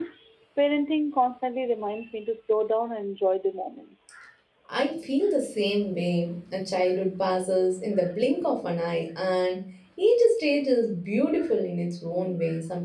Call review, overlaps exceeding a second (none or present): none